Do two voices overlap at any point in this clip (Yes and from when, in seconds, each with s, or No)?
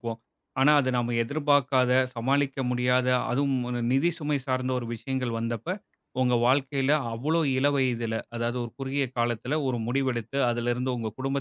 No